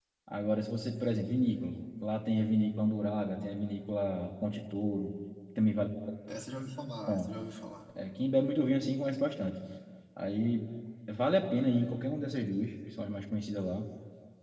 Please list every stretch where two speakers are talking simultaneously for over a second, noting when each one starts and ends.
none

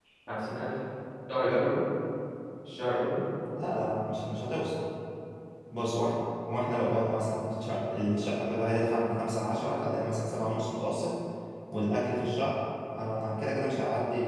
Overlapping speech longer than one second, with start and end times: none

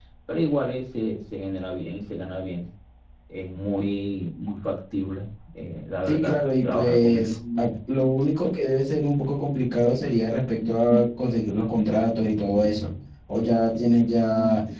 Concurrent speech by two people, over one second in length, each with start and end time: 6.1-7.3

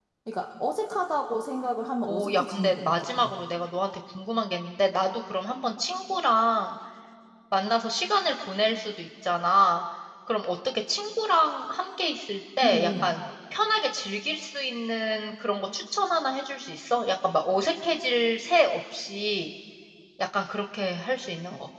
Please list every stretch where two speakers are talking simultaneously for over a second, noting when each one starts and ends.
2.1-3.3

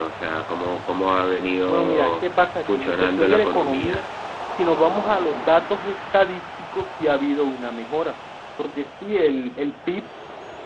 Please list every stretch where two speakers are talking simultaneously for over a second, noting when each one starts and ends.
1.7-4.0

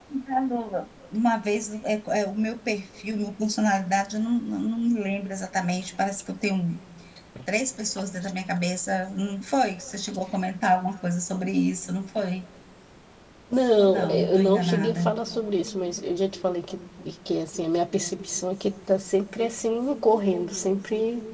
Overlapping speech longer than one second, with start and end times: 13.7-15.1

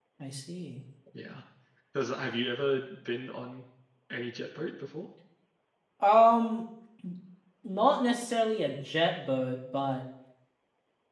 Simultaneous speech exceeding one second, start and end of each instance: none

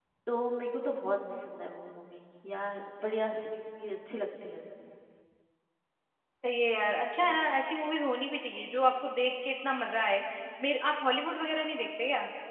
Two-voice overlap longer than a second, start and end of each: none

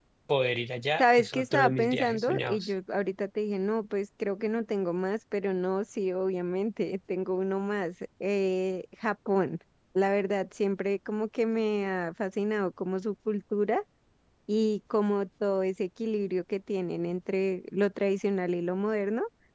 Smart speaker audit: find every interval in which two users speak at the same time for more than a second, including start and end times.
1.0-2.7

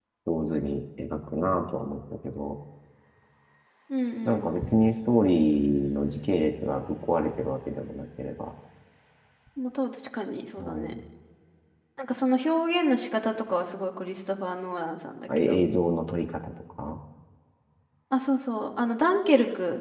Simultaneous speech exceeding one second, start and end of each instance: none

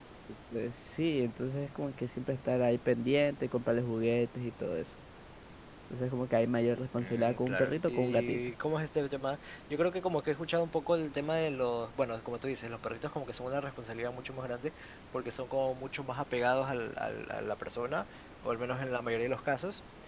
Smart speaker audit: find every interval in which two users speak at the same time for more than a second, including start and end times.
7.0-8.4

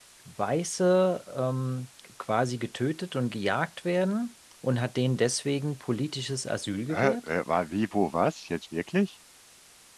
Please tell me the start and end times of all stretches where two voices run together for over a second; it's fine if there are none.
none

